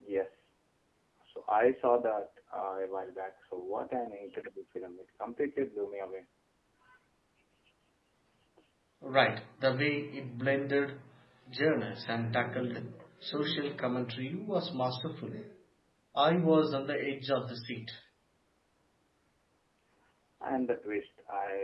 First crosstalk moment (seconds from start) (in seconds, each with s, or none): none